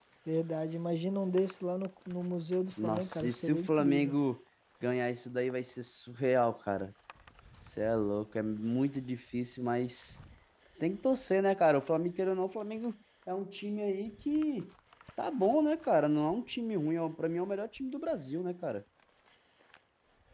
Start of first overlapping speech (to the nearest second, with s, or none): 3 s